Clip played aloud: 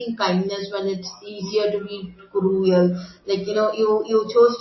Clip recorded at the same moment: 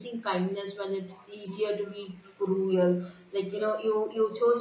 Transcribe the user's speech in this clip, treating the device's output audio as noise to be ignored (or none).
none